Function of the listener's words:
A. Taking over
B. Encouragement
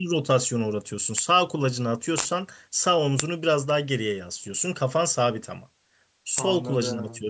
B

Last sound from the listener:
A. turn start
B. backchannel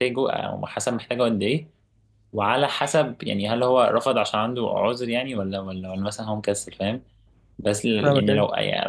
B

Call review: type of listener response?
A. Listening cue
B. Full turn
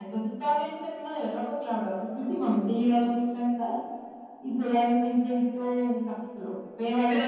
B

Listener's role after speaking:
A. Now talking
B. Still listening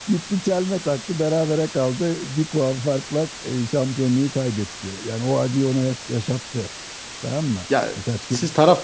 A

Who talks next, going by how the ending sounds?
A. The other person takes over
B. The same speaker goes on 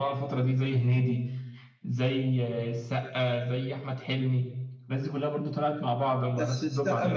A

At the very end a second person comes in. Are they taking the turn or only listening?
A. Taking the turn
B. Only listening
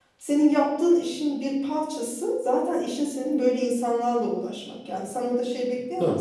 B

